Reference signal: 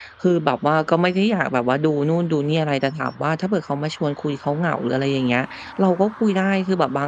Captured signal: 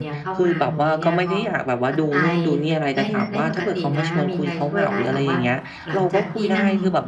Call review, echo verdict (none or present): present